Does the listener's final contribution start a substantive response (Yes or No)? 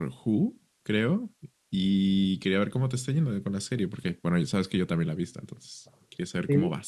Yes